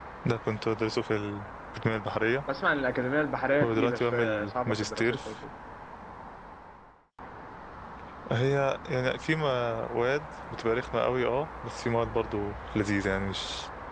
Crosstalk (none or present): present